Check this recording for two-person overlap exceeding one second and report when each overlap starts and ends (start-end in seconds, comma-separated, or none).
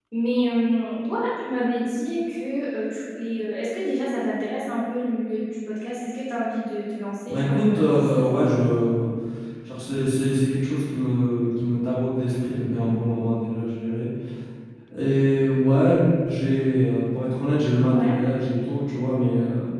7.3-8.6